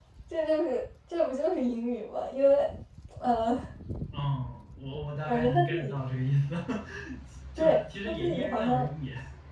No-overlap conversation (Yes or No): No